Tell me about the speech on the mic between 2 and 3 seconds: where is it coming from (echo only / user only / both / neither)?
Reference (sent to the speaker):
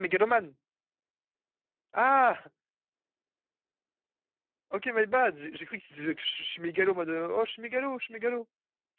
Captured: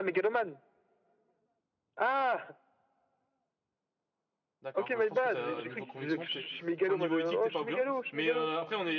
echo only